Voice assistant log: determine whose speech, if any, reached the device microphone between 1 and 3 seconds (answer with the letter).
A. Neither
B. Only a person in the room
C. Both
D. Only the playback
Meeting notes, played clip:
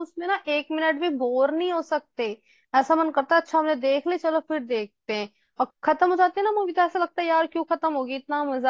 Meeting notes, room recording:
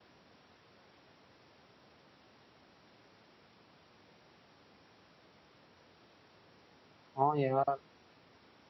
A